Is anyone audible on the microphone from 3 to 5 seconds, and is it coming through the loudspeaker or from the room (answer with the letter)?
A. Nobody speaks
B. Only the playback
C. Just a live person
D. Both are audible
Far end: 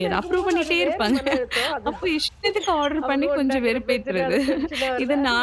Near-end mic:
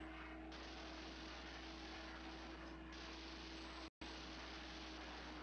A